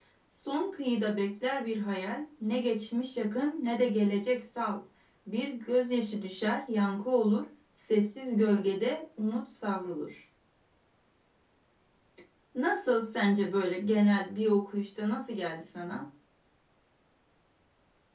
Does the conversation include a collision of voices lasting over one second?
No

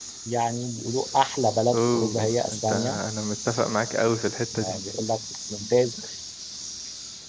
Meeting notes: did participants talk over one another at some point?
Yes, from 1.7 s

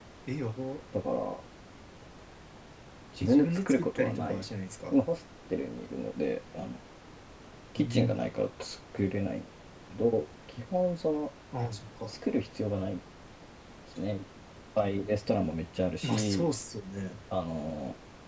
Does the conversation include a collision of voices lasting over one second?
Yes, from 3.2 s

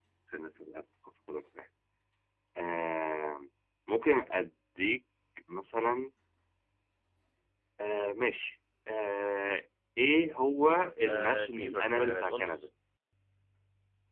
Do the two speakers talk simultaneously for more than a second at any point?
Yes, from 11.0 s

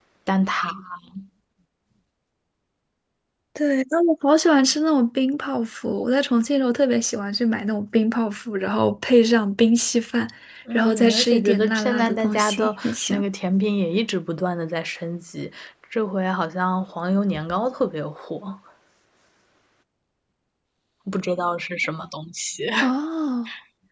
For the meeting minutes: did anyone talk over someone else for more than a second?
Yes, from 10.7 s

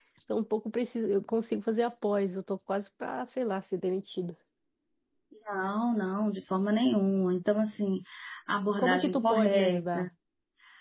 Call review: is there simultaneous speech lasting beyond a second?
Yes, from 8.8 s

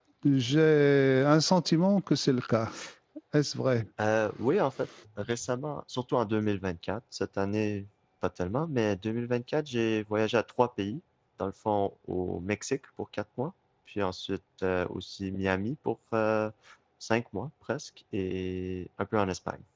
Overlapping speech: No

